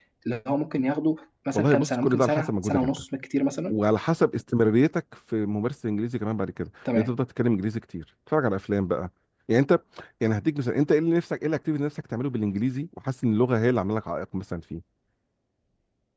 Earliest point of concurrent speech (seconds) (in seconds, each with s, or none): 1.5 s